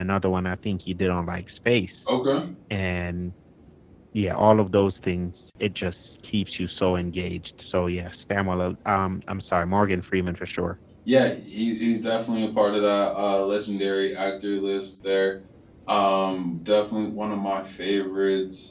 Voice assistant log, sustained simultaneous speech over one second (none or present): none